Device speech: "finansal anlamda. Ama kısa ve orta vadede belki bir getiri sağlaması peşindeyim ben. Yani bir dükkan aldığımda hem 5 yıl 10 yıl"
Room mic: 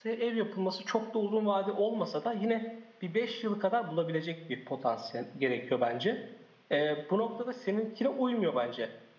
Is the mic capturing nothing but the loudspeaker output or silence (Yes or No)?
No